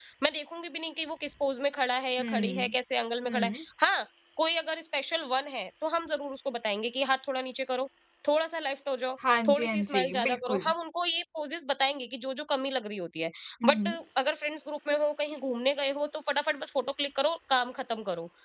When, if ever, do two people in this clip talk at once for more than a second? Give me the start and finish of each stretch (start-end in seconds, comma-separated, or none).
9.4-10.7